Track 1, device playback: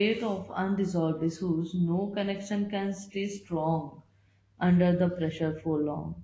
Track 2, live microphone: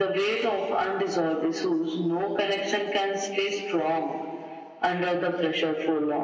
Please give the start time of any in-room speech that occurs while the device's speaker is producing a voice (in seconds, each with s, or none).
none